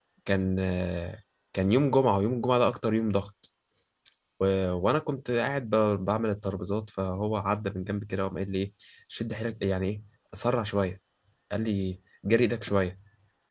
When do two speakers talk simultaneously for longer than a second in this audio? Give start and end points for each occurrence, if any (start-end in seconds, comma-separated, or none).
none